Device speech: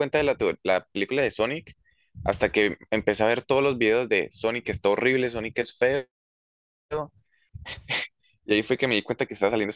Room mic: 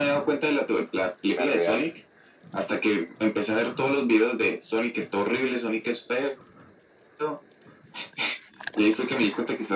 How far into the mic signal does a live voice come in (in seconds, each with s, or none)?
1.2 s